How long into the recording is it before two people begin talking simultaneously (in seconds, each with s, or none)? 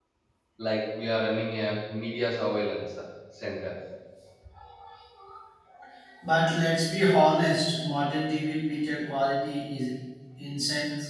none